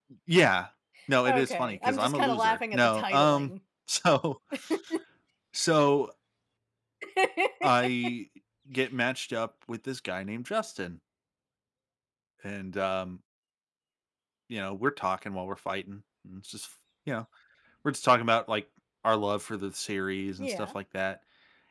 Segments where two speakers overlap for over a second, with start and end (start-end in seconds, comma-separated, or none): 1.3-3.5